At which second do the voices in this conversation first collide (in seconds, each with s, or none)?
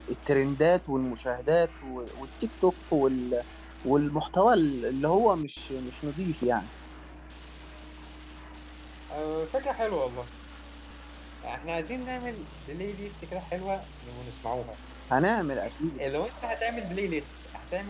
none